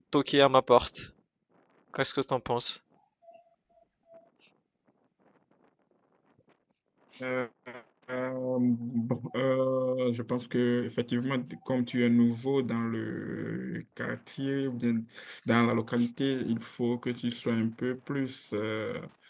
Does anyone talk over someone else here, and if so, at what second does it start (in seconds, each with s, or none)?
none